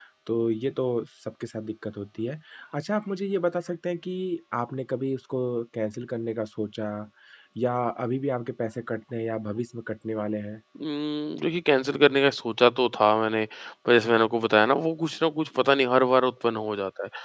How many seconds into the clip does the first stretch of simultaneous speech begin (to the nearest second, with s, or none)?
none